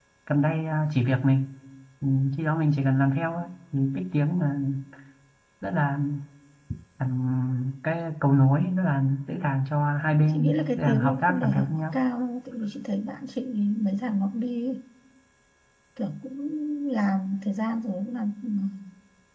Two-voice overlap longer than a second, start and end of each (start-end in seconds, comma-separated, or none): 10.3-12.0